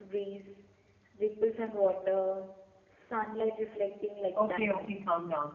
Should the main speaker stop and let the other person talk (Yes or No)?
Yes